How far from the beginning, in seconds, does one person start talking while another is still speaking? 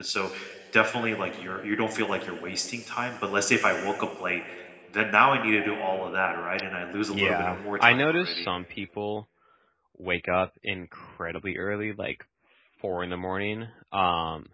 7 s

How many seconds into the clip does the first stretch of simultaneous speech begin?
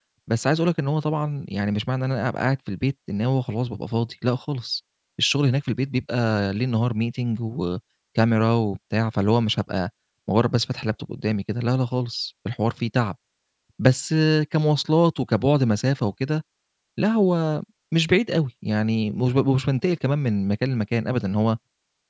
none

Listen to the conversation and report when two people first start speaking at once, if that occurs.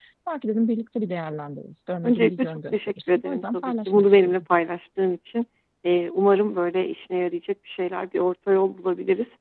2 s

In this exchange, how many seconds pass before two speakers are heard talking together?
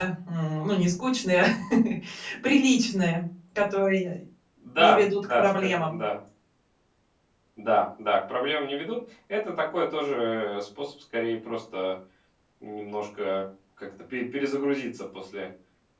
5 s

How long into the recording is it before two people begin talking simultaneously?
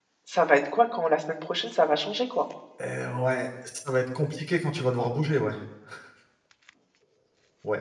none

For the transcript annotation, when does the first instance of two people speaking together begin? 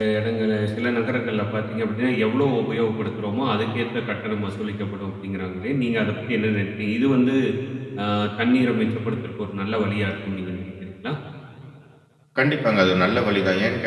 none

